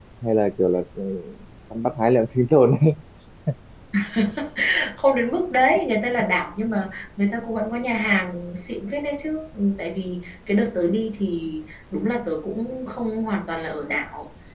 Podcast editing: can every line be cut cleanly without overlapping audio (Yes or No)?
Yes